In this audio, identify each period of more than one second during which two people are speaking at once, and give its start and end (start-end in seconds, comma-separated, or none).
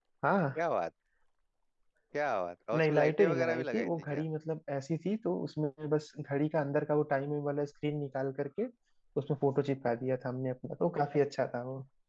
2.7-4.2